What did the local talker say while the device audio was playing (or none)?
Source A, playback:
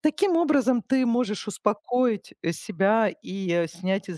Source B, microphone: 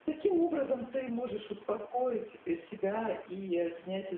none